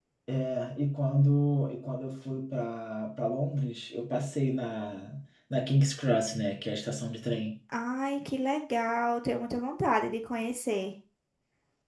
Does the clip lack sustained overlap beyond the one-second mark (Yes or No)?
Yes